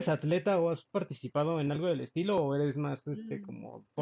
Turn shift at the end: Yes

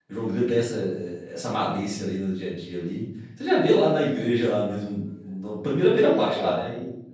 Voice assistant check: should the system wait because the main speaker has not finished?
No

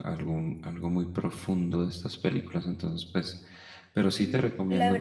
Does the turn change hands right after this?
Yes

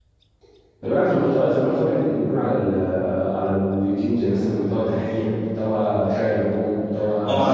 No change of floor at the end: No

